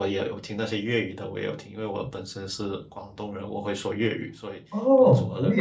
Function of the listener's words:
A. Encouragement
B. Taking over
B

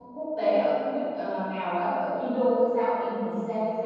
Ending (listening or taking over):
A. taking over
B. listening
A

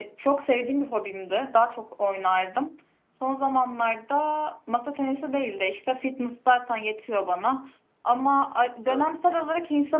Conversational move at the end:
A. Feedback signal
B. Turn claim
A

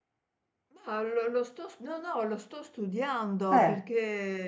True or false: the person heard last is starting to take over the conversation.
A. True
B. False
B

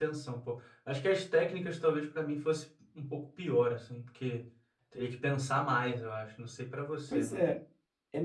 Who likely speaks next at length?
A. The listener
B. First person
A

